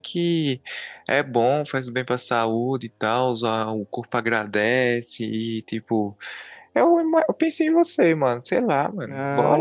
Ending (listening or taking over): taking over